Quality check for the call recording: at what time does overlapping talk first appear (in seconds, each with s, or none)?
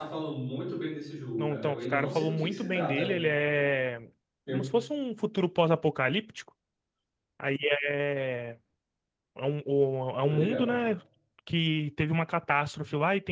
1.4 s